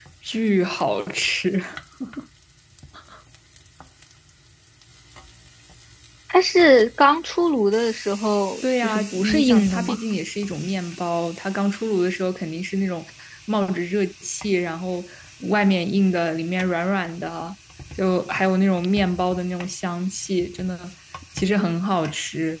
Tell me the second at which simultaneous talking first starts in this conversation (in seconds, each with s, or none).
8.6 s